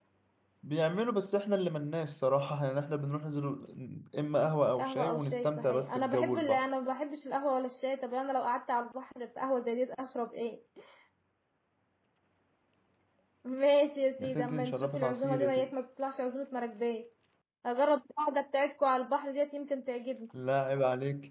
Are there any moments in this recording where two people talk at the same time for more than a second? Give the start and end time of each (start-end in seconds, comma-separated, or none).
4.8-6.7, 14.2-15.7